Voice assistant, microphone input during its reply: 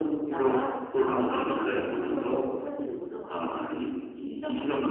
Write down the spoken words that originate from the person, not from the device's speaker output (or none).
none